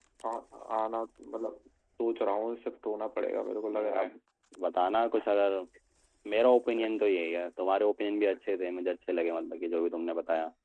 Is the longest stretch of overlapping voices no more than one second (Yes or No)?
Yes